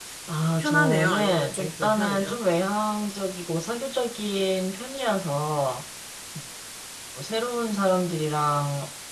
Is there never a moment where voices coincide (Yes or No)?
No